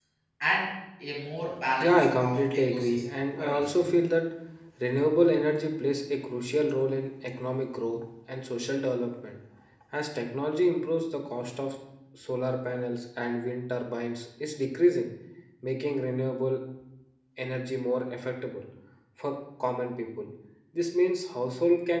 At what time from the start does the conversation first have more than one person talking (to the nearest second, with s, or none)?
2 s